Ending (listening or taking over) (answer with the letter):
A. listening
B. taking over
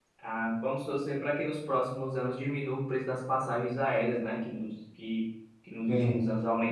A